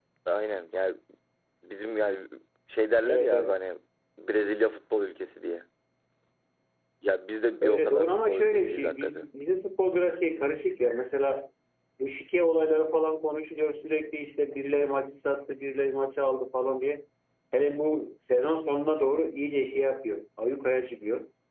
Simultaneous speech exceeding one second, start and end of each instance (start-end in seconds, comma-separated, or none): 7.6-9.3